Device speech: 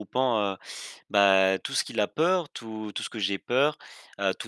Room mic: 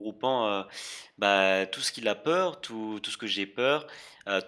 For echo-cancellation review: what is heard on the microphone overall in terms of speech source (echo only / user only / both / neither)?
echo only